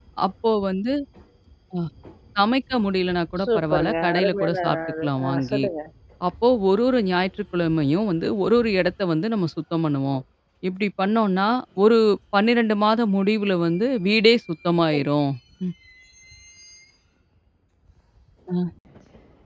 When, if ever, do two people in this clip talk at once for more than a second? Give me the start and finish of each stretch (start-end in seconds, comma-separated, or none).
3.4-5.6